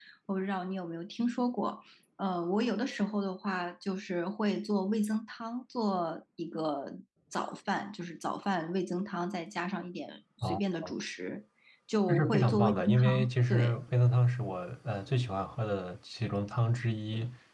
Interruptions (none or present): present